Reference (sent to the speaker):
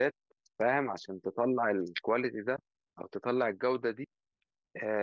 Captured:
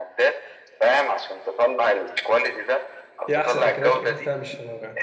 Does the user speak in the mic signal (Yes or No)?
Yes